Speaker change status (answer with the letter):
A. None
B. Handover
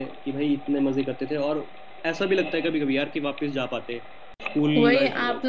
B